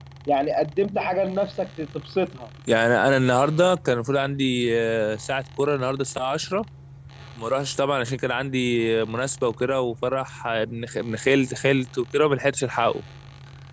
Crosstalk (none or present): none